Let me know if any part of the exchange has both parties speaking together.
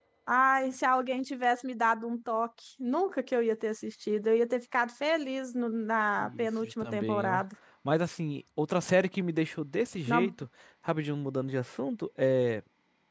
Yes, from 6.2 s

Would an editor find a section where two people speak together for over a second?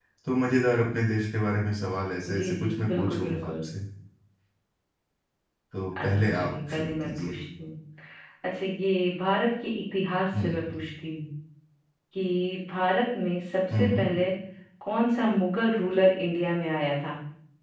Yes, from 2.4 s

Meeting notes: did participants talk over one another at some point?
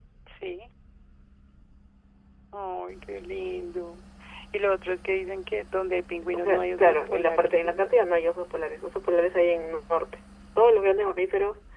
Yes, from 6.3 s

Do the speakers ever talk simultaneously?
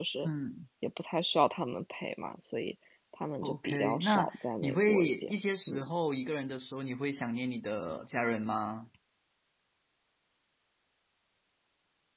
Yes, from 3.4 s

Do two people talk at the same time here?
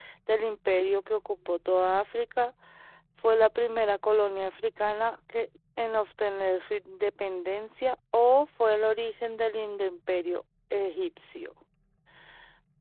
No

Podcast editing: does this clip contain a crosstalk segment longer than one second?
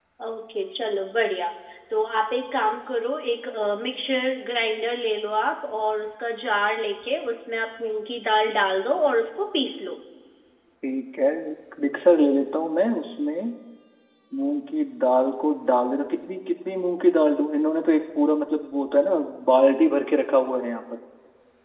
No

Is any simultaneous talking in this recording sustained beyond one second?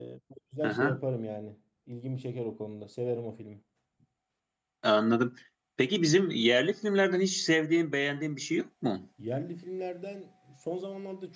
No

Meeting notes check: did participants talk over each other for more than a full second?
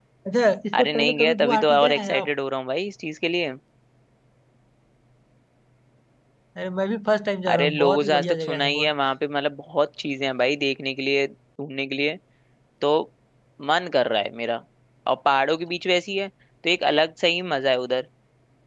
Yes, from 0.7 s

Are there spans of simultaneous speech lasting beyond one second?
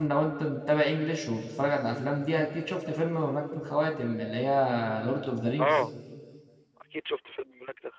No

